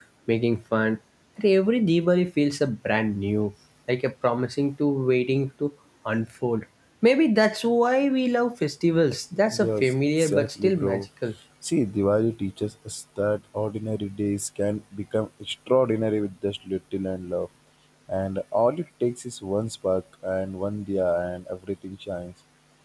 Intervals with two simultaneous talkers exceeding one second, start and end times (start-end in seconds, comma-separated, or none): 9.6-11.0